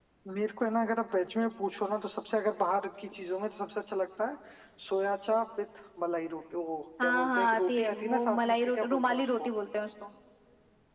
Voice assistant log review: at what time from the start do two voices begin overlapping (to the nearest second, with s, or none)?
7 s